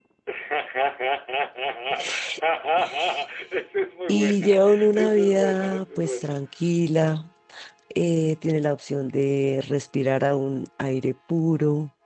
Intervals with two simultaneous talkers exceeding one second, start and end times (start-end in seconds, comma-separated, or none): 4.1-6.3